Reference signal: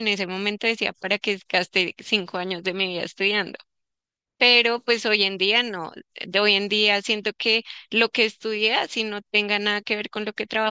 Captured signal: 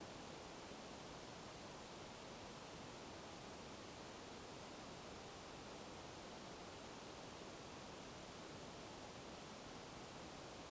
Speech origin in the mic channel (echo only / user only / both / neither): neither